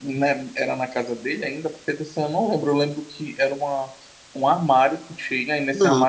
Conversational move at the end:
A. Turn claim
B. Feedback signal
B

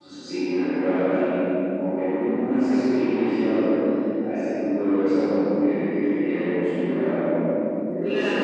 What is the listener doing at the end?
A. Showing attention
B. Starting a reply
B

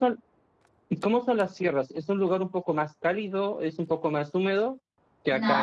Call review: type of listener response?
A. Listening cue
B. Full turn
B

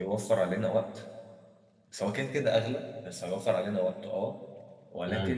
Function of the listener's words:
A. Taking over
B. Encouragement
B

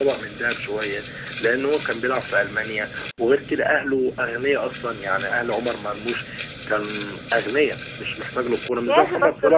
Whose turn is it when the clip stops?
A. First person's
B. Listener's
B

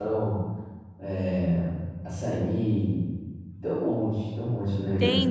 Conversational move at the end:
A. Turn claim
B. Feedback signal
A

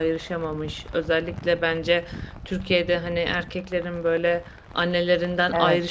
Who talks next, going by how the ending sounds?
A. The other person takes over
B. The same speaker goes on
B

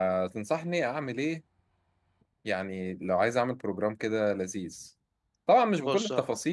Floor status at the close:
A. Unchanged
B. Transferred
A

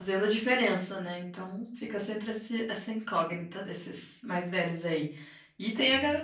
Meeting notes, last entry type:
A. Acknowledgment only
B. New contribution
A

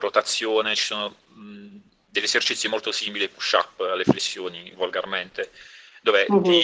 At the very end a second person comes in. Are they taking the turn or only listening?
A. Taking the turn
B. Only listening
B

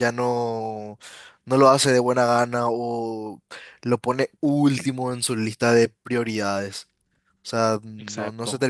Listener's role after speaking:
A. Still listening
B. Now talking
A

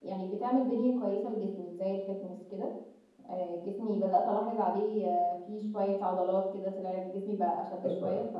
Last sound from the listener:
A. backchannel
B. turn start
B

